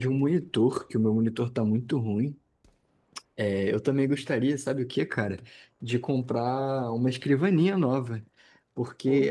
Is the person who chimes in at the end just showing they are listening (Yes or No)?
Yes